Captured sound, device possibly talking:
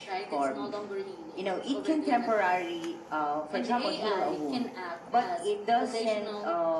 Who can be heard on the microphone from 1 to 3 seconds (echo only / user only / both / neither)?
echo only